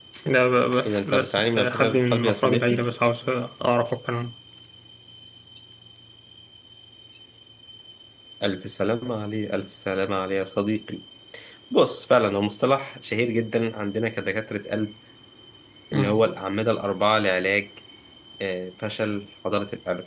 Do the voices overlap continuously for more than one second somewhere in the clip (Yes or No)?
Yes